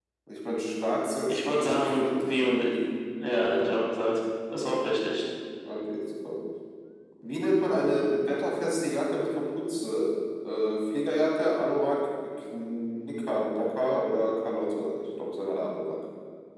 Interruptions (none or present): present